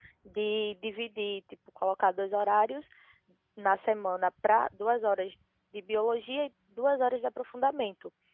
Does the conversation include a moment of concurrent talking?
No

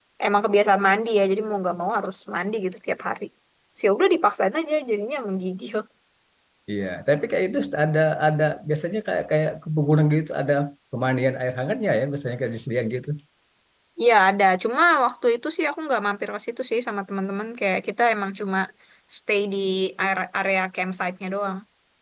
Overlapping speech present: No

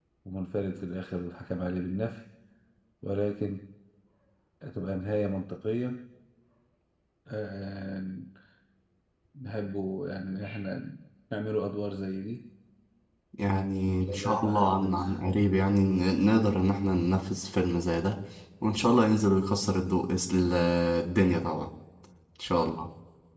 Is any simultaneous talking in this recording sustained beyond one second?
Yes, from 13.9 s

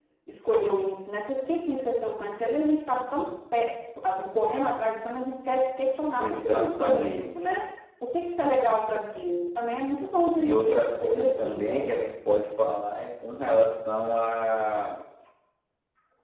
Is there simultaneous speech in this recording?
Yes, from 6.2 s

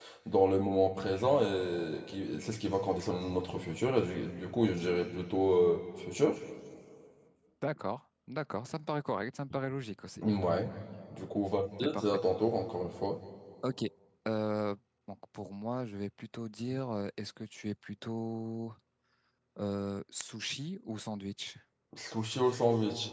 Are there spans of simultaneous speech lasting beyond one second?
No

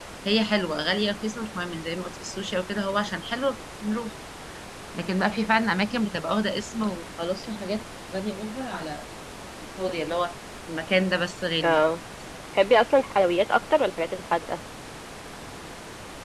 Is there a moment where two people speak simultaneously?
No

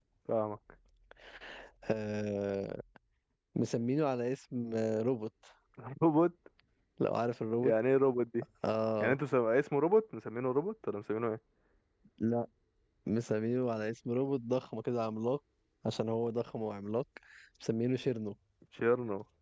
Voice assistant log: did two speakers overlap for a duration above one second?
No

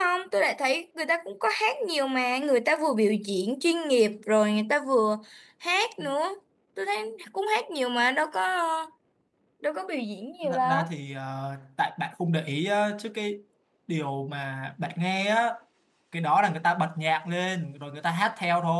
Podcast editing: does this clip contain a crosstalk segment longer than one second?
No

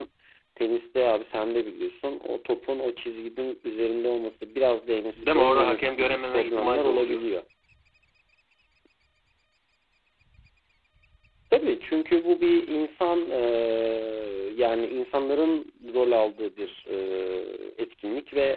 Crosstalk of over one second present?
Yes, from 5.2 s

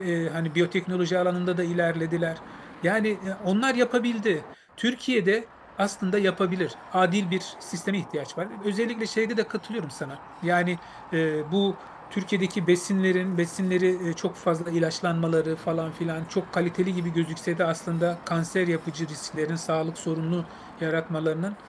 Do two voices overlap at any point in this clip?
No

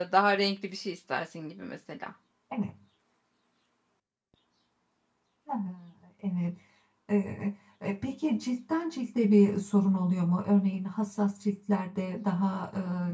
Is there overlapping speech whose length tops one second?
No

